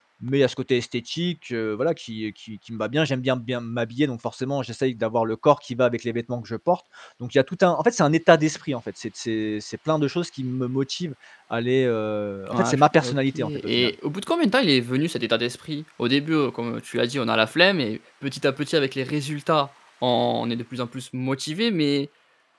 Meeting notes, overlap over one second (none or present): present